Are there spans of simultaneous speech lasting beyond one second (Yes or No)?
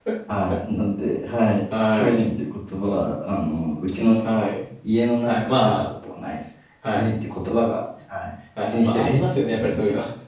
Yes